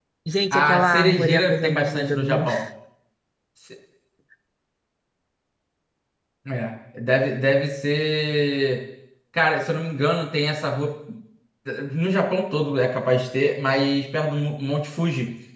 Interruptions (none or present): present